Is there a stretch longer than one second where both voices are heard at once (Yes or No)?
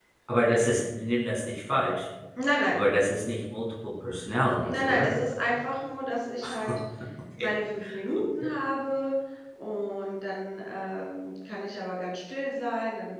No